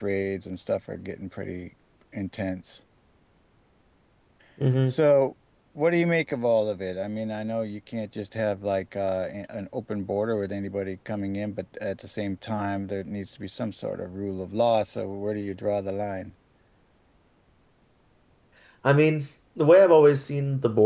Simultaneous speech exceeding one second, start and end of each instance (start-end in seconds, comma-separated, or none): none